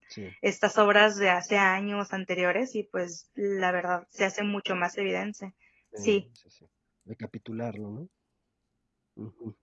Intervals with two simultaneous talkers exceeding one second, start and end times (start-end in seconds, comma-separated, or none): none